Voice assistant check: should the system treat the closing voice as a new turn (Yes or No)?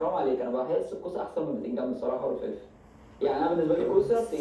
No